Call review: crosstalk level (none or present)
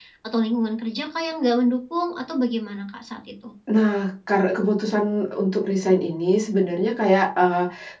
none